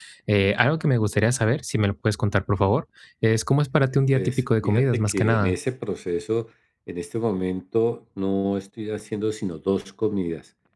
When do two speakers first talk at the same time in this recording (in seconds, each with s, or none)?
4.1 s